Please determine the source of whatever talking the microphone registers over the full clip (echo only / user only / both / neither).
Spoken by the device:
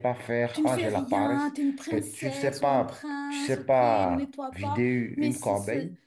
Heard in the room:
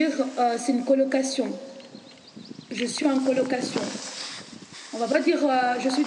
user only